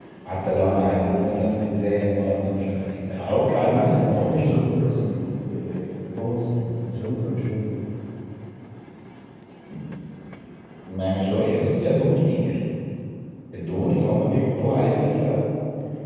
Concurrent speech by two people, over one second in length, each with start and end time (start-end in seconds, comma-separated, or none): 3.6-4.8